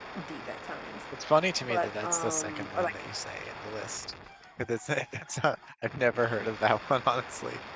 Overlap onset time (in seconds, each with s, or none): 1.6 s